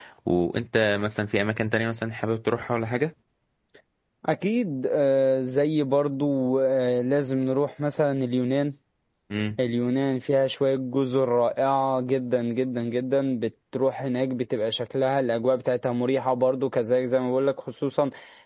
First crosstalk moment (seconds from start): none

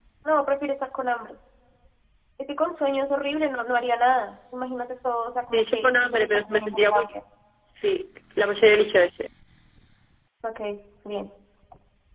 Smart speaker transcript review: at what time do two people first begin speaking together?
5.5 s

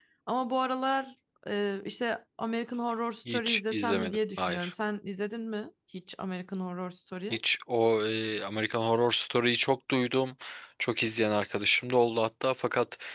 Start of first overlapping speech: 3.3 s

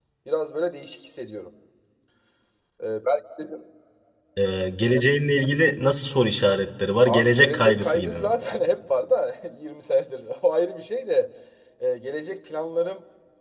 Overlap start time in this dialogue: 7.0 s

